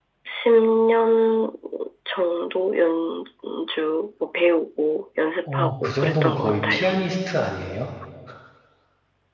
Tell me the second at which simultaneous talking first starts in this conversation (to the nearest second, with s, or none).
5 s